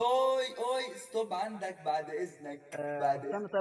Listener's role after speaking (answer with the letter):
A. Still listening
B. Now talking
B